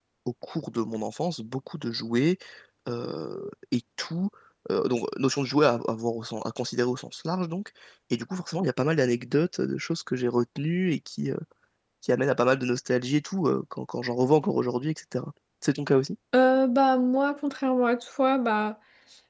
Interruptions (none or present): none